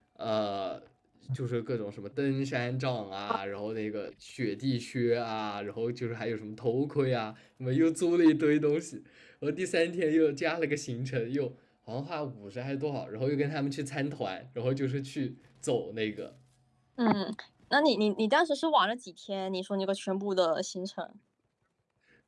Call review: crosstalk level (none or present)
none